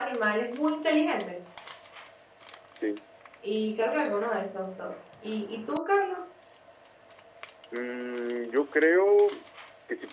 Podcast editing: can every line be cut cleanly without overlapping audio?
Yes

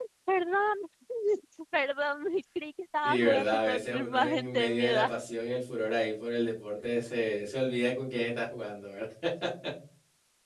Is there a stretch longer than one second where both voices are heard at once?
Yes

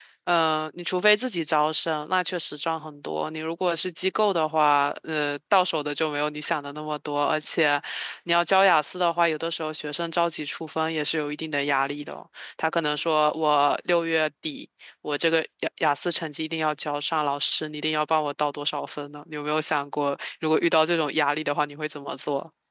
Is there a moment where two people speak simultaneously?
No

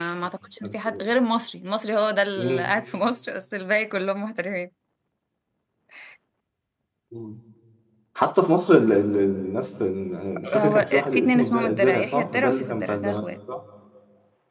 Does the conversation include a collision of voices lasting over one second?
Yes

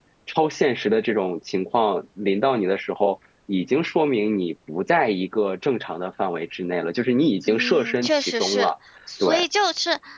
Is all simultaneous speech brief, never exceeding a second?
No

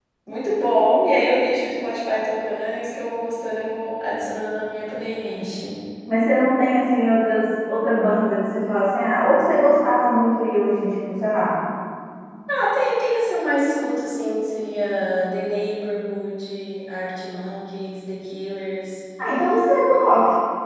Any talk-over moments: No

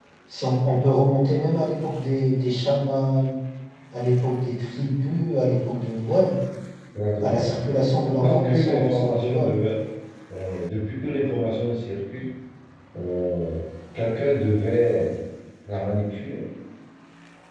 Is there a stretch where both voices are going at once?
Yes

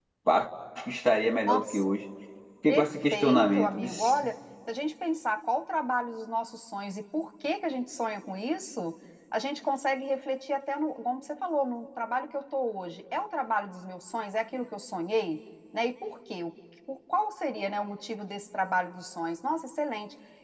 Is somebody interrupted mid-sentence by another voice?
Yes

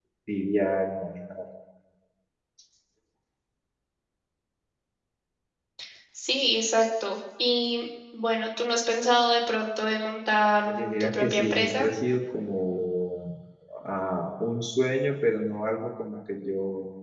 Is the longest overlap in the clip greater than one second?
Yes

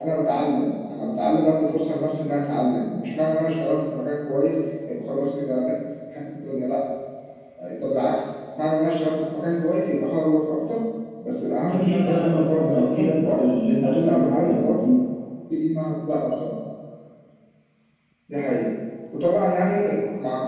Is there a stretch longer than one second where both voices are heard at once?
Yes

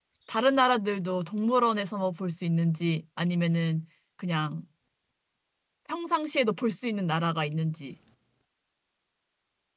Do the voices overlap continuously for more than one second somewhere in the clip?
No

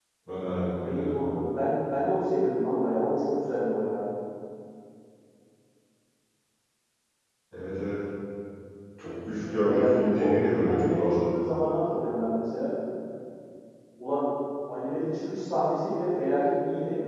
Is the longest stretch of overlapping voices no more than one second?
No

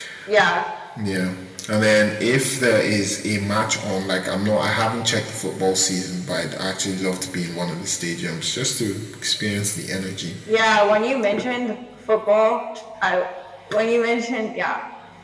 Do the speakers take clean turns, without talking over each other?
Yes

